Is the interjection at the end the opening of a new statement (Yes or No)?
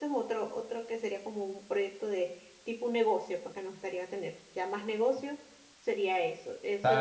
Yes